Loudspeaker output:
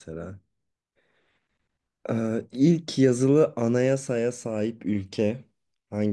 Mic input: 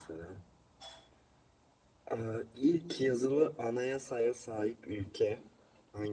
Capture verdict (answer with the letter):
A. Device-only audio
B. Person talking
A